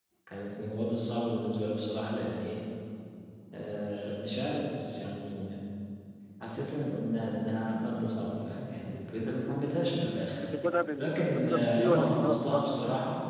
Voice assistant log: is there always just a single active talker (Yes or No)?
No